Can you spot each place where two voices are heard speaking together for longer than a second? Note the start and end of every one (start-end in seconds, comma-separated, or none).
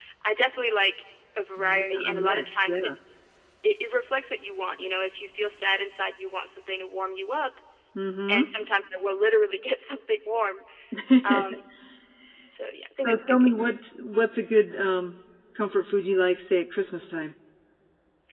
1.6-2.9